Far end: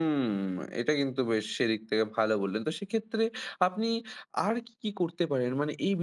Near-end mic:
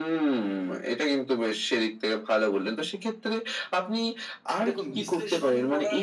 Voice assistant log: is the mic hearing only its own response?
No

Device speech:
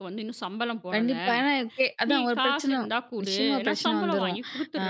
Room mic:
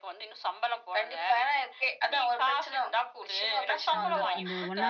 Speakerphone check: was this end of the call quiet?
No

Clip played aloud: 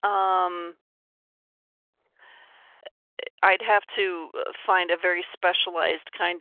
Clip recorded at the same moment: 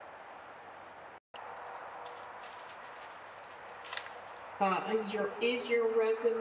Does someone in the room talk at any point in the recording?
Yes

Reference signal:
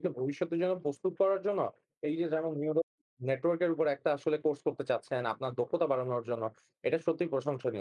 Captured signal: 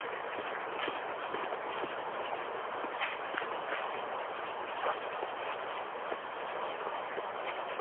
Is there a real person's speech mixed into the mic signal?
No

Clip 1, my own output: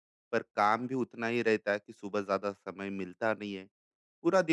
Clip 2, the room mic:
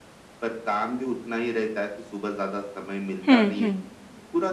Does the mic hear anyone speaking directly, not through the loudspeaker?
Yes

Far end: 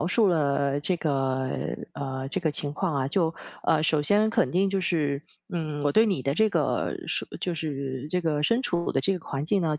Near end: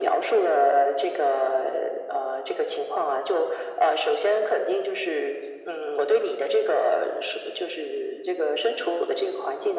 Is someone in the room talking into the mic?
No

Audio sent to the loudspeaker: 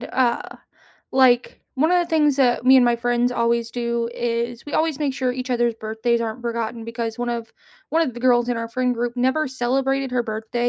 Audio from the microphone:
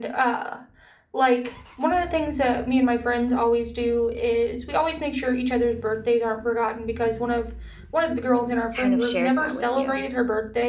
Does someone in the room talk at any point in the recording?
Yes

